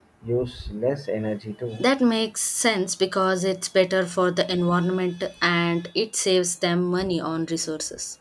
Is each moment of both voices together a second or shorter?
Yes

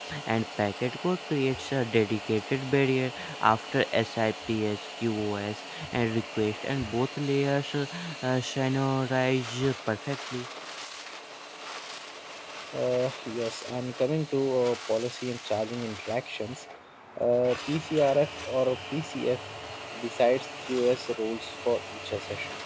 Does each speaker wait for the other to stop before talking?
Yes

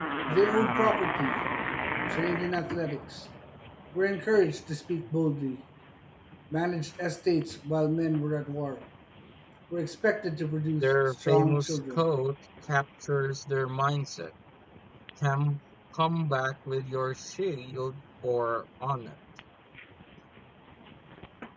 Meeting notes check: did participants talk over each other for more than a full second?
Yes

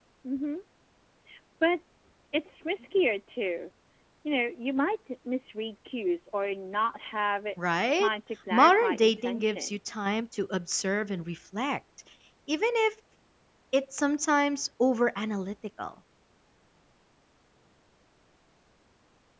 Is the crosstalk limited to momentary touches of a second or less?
No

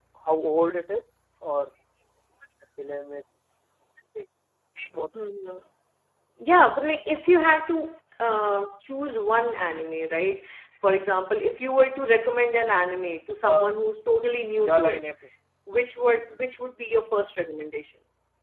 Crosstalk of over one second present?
No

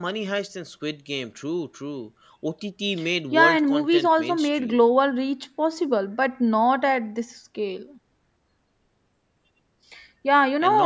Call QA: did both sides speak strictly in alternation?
No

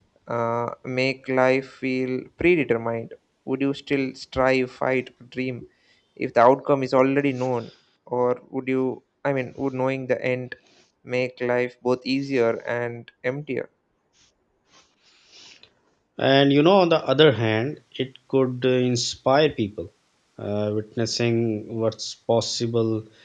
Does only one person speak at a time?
Yes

